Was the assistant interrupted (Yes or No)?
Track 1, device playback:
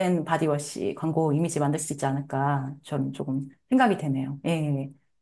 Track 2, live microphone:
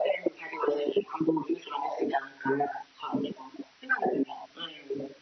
No